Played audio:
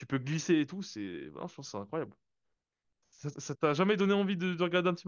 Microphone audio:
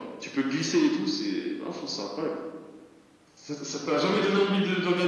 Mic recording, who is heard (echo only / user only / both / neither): echo only